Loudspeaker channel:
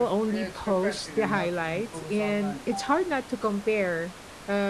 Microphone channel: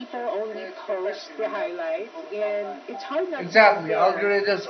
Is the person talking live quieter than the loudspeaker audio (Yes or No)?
No